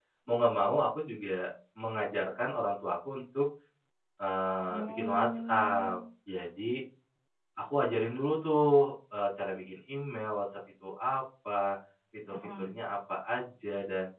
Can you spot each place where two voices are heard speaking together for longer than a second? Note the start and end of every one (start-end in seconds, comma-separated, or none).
4.7-6.0